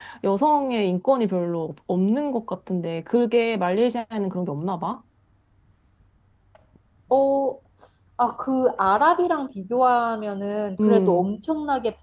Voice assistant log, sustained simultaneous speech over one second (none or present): none